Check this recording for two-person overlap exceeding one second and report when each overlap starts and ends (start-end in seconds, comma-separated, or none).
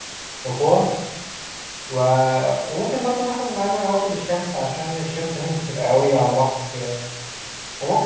none